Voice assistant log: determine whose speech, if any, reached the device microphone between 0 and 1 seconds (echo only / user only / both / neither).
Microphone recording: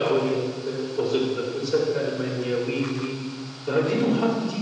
echo only